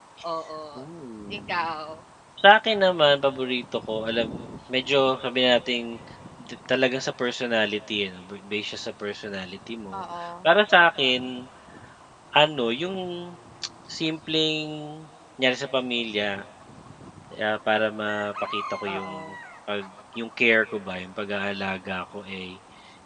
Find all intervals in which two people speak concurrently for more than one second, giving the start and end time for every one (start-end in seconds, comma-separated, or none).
none